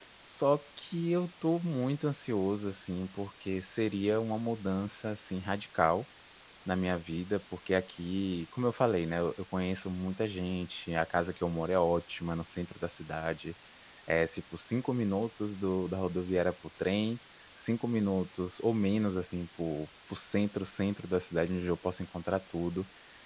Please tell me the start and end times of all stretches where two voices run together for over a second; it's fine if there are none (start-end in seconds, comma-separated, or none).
none